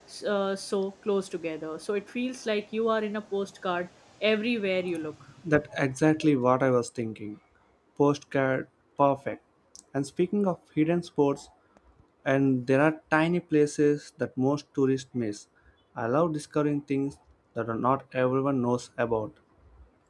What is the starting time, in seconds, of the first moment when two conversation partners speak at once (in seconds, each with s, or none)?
none